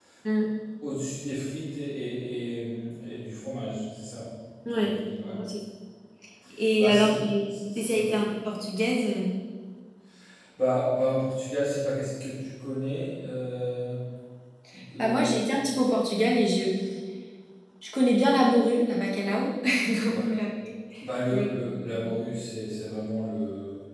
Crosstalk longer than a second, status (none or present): present